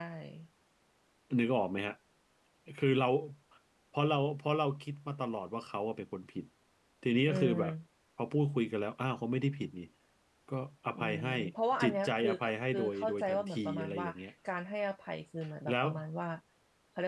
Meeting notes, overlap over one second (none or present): present